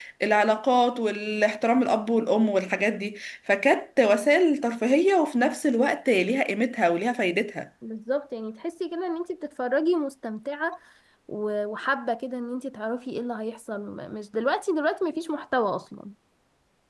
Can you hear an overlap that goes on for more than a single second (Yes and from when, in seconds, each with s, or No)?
No